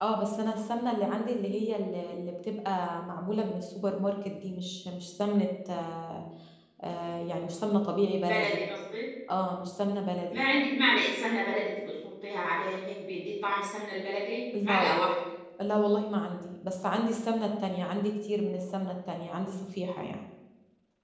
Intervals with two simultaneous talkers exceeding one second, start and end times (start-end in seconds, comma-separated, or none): none